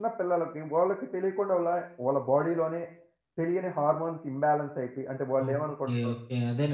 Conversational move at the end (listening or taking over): taking over